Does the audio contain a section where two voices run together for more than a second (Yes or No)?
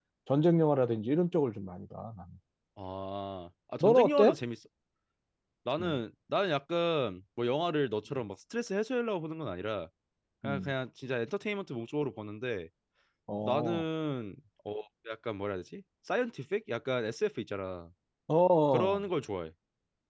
No